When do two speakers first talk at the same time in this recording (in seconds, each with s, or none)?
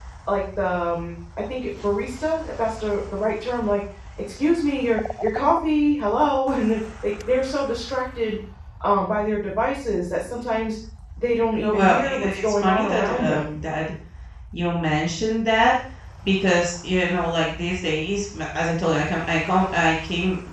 11.6 s